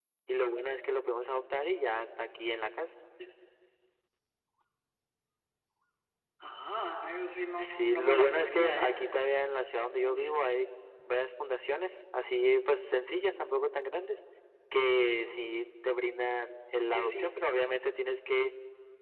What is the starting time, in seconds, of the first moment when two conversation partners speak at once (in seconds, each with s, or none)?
7.6 s